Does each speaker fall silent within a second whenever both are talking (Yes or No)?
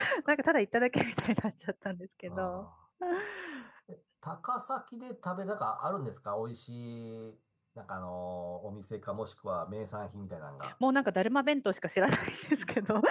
Yes